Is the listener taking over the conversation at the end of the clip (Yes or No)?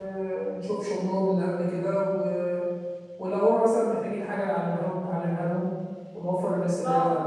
No